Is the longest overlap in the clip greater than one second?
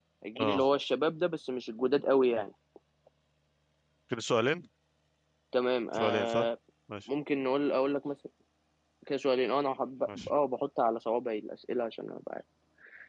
No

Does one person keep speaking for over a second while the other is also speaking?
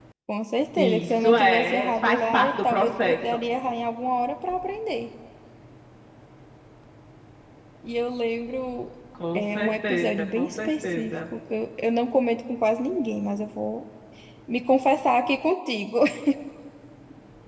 Yes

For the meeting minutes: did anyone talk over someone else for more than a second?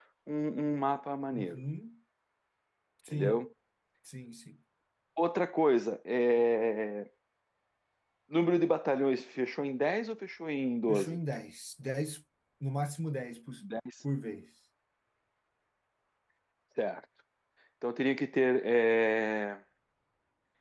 No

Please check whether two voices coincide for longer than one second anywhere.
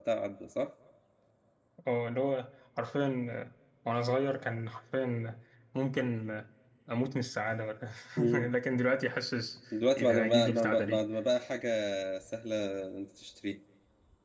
Yes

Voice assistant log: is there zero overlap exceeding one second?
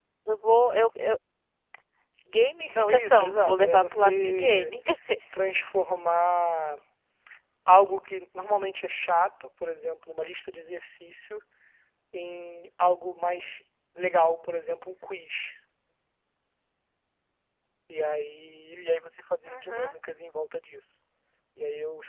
No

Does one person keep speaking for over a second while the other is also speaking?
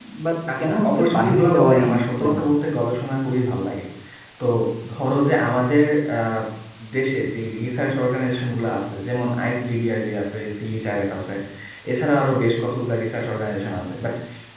Yes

